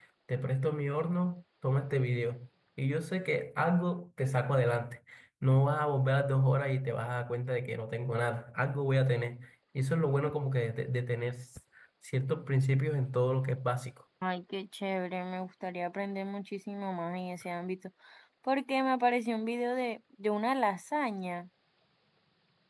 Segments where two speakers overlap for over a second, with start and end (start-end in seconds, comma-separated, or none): none